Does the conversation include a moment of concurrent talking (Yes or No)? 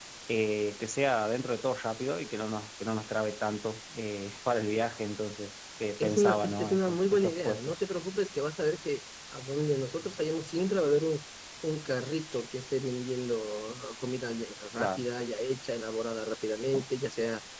Yes